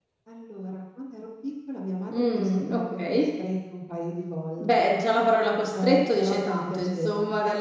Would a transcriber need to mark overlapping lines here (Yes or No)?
Yes